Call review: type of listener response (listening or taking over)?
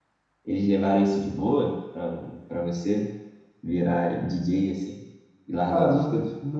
taking over